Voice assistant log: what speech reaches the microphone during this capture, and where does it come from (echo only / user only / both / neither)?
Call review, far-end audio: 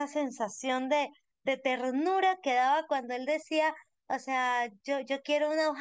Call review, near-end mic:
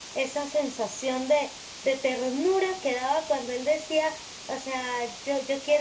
echo only